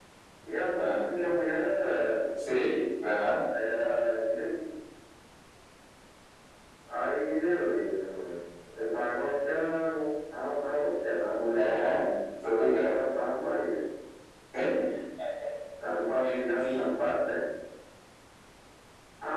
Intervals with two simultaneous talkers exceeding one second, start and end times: none

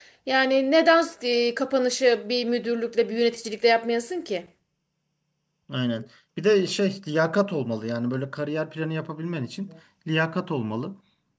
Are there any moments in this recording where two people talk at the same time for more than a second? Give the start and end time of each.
none

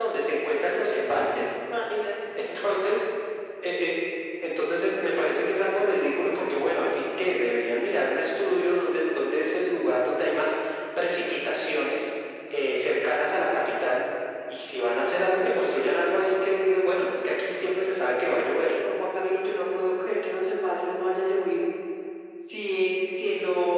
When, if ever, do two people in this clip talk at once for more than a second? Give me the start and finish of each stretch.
none

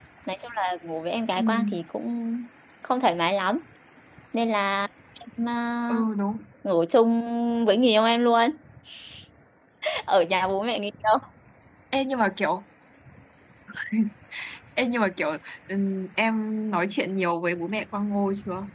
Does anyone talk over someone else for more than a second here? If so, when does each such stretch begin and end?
none

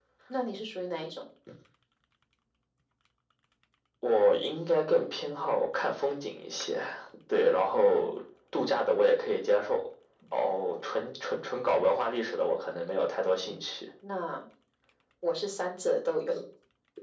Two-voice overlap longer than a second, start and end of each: none

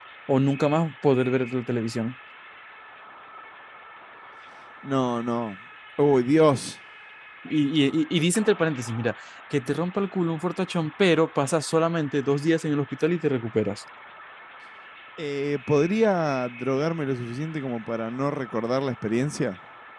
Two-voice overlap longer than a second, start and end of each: none

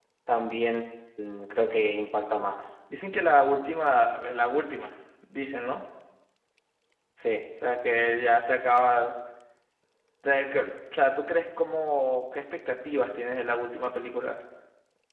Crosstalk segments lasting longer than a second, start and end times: none

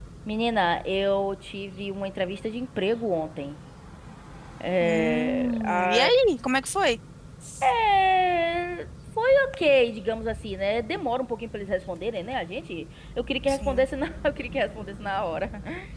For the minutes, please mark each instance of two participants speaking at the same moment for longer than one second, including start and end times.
4.8-6.1

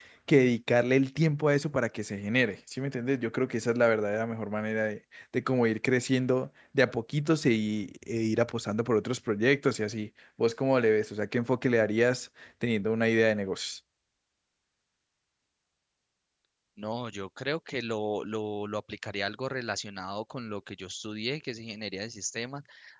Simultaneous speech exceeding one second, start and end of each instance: none

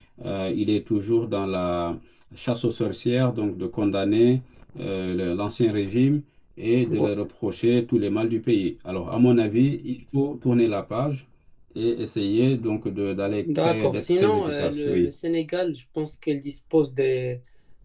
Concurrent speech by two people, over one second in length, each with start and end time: 13.4-15.1

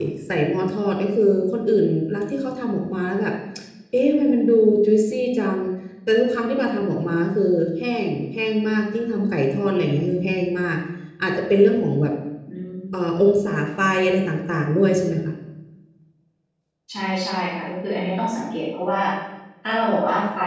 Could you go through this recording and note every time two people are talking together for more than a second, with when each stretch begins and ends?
none

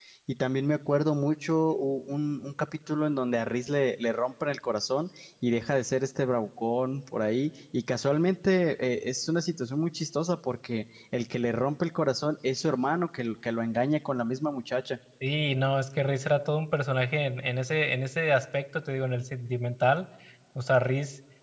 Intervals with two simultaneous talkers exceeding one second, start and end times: none

